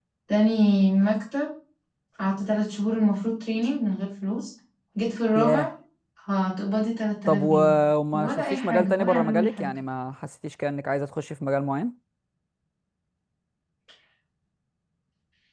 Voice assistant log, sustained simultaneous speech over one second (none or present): present